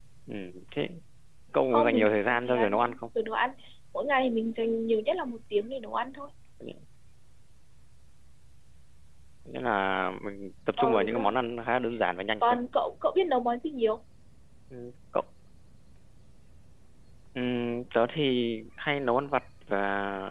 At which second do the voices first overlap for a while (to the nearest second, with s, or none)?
2 s